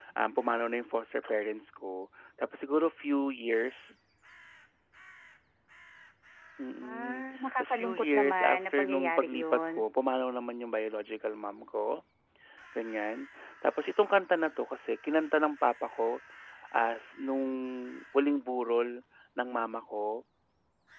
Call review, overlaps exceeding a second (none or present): present